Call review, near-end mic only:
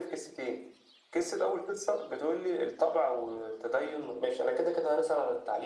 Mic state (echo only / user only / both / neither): echo only